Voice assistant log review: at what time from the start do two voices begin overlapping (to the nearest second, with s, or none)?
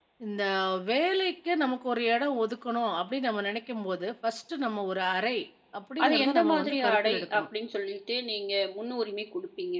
6 s